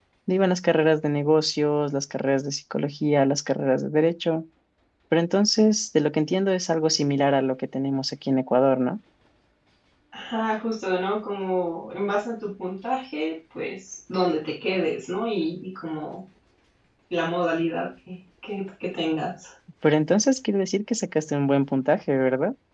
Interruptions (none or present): none